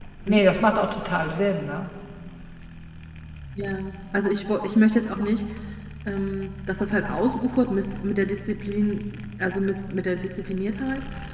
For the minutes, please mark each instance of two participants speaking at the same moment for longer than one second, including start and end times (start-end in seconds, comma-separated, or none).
none